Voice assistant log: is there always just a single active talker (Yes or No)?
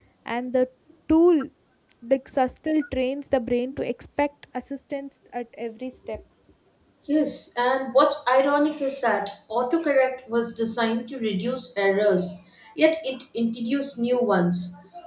Yes